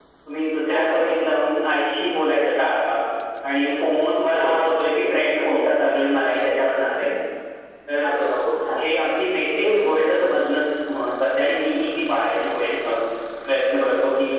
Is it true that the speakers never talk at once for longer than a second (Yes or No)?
Yes